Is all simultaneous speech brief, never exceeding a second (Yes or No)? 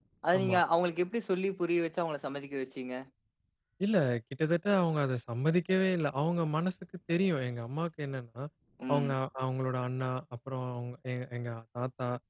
Yes